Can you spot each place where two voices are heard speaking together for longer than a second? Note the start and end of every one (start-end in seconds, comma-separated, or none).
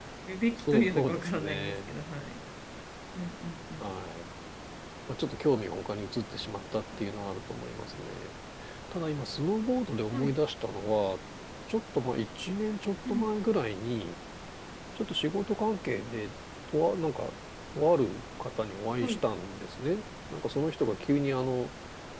0.7-1.9